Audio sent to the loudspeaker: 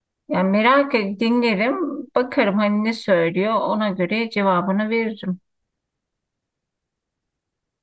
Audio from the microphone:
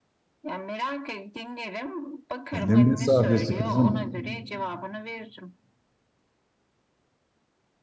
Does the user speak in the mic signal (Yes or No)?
Yes